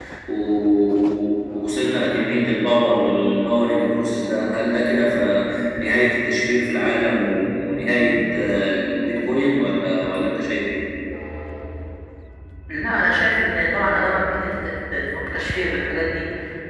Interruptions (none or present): none